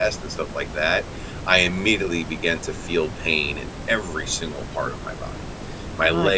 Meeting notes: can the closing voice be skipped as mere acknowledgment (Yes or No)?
Yes